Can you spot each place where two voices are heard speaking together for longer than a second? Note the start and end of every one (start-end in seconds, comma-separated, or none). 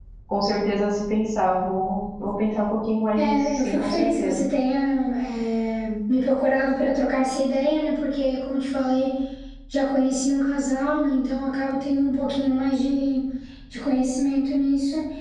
3.2-4.5